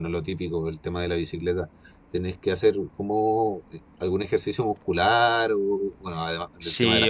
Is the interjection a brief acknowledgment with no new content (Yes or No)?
No